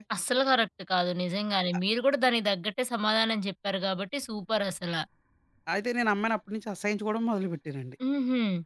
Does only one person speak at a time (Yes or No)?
Yes